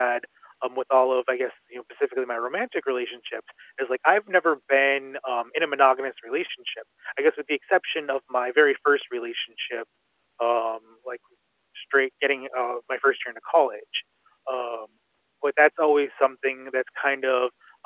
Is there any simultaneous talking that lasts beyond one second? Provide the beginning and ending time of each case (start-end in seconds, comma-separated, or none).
none